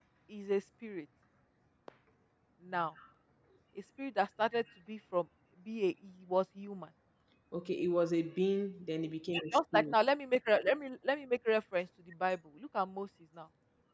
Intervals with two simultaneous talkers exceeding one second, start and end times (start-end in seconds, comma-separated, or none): none